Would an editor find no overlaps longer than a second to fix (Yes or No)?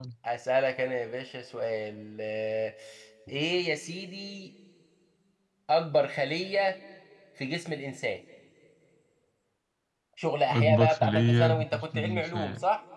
No